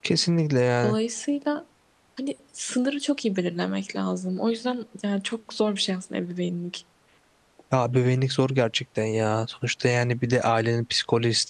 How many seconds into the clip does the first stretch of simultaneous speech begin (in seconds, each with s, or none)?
none